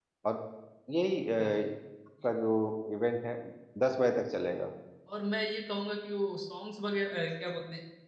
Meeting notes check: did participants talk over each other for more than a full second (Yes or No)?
No